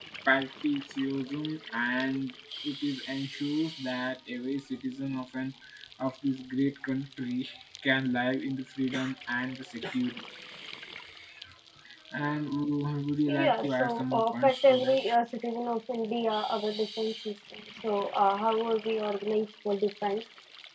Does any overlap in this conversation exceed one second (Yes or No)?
Yes